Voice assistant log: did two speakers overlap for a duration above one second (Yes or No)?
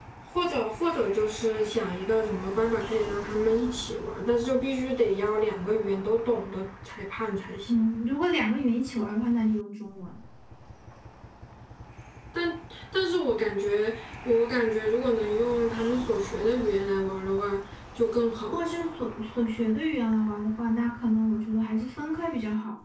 No